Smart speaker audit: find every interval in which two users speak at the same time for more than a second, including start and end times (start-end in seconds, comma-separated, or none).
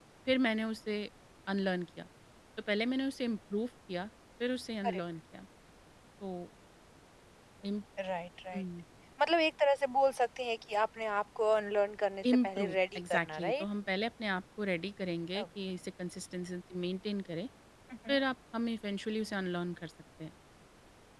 12.4-13.7